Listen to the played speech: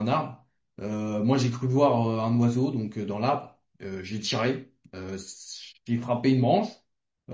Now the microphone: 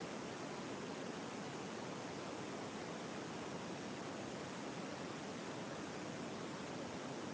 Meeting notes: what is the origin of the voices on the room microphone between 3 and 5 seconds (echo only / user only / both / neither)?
neither